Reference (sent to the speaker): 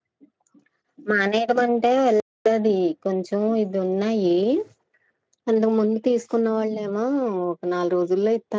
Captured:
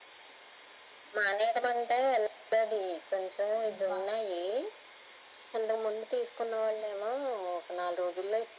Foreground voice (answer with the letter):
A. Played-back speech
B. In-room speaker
A